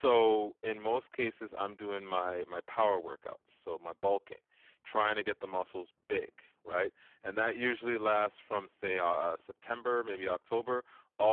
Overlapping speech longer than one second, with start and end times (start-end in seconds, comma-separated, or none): none